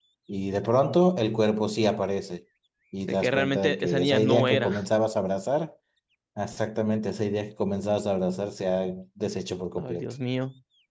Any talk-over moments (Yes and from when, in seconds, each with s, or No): Yes, from 3.1 s